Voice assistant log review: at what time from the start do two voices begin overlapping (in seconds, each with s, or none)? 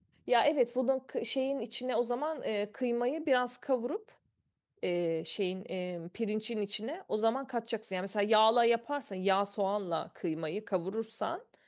none